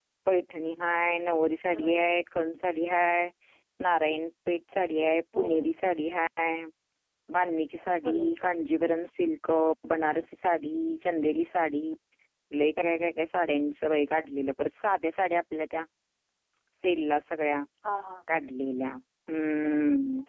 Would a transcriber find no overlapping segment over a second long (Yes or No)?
Yes